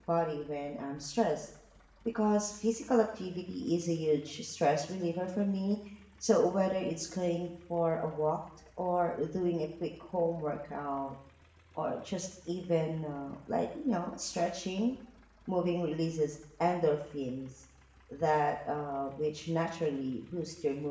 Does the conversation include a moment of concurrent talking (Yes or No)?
No